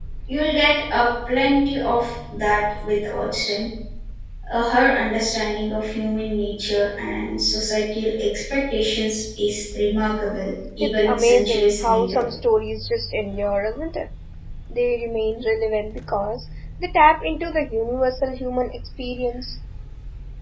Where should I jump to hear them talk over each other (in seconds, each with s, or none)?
10.8 s